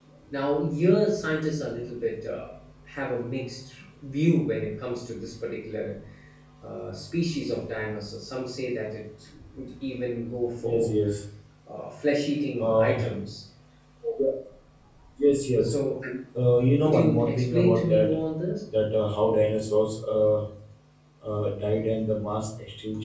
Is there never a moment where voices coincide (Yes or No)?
No